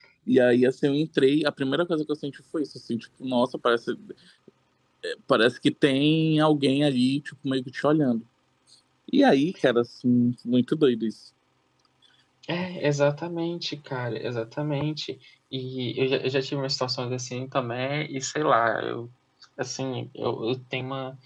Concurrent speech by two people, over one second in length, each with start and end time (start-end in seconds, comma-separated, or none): none